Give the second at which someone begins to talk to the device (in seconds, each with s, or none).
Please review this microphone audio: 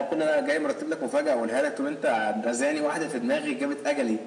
none